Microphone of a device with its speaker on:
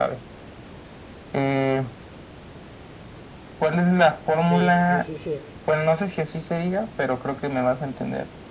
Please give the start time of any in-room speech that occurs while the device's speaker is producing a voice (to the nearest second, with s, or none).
4 s